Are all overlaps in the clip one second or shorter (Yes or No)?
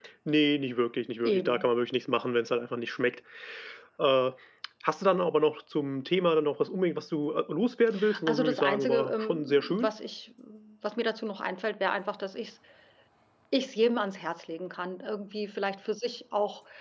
No